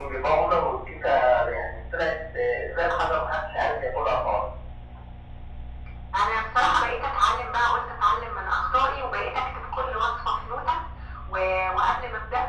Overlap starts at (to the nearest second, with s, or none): none